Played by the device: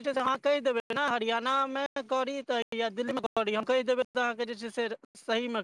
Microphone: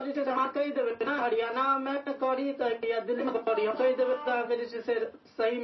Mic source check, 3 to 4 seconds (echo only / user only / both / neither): both